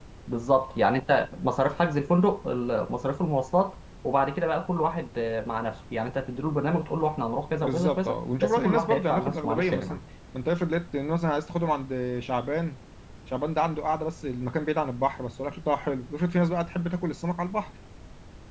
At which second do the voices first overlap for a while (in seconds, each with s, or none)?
7.6 s